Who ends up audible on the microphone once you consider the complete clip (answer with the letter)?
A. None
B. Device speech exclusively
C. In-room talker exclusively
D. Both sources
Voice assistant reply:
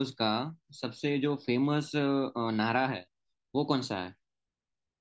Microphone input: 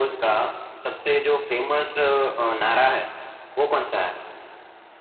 B